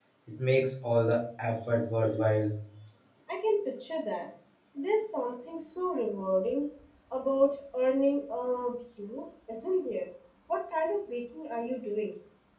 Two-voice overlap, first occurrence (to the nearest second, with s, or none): none